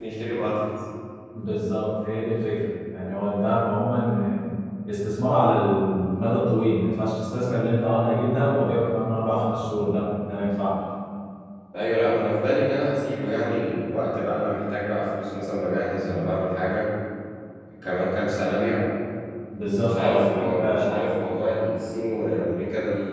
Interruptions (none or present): present